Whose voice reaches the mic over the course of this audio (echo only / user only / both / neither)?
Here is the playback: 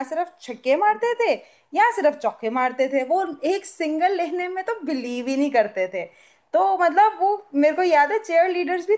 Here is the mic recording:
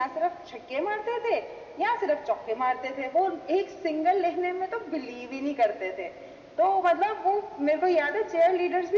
echo only